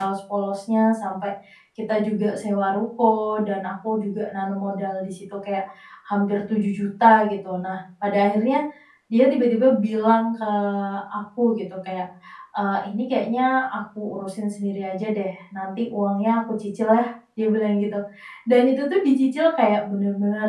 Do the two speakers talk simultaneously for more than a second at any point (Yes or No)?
No